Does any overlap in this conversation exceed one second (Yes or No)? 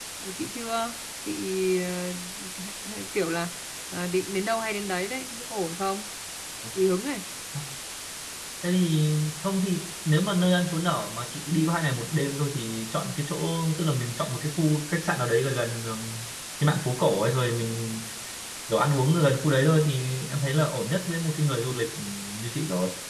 No